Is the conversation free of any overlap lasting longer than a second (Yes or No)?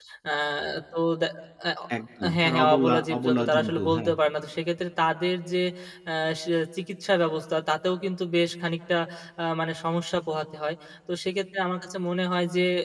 No